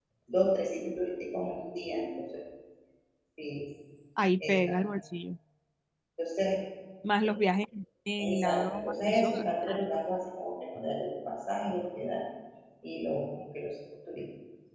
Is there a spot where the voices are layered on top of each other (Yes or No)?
Yes